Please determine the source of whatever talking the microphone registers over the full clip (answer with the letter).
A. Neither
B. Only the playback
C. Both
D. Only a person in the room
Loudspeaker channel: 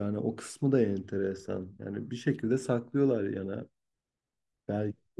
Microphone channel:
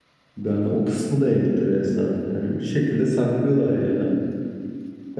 B